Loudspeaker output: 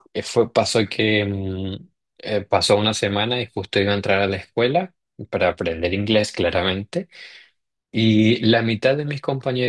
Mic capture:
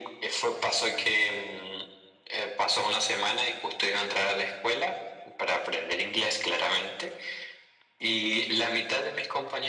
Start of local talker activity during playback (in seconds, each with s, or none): none